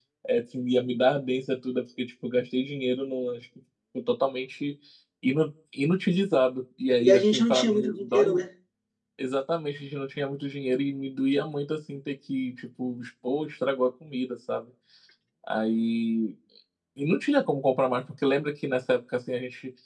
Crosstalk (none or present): present